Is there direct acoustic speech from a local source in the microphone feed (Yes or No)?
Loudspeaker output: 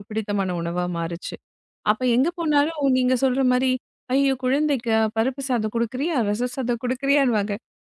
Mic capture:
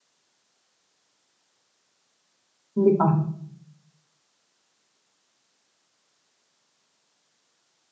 Yes